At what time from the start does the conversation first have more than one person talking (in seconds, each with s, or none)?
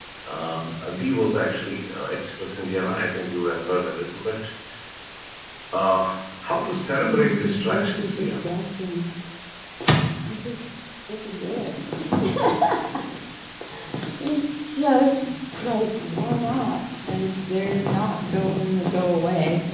7.0 s